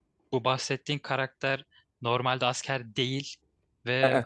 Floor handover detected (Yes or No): No